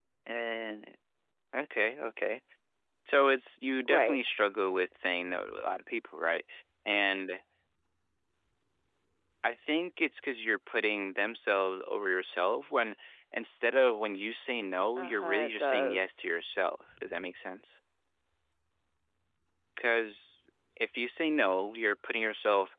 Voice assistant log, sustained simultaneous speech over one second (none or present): present